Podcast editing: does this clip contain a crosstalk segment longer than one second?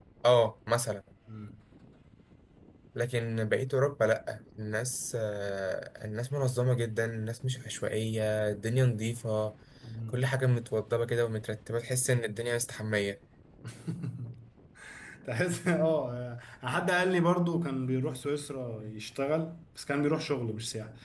No

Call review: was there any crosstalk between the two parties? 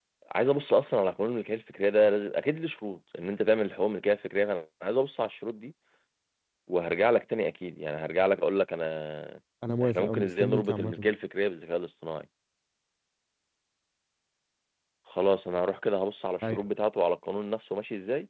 Yes, from 9.8 s

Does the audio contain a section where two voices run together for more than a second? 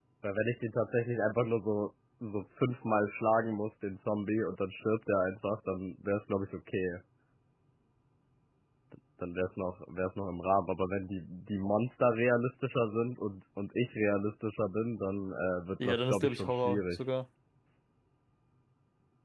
Yes, from 15.8 s

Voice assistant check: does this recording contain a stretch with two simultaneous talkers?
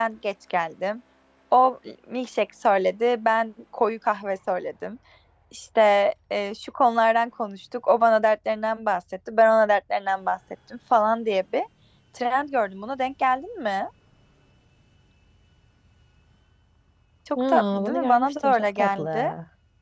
Yes, from 17.4 s

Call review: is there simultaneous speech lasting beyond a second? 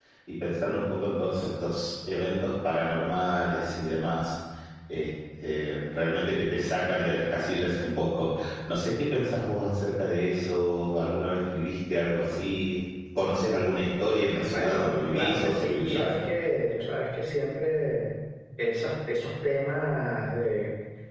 Yes, from 14.5 s

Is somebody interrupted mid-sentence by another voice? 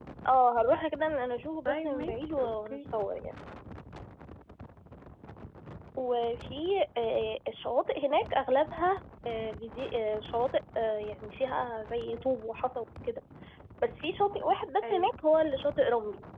Yes, from 1.6 s

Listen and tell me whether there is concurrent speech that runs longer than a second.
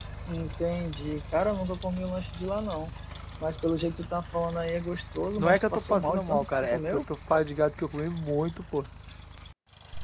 Yes, from 5.4 s

